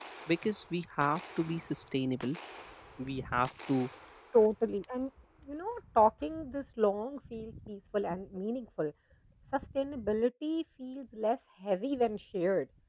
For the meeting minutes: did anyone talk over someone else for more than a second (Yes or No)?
No